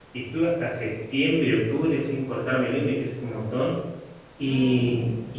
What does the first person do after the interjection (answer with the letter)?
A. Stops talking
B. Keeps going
B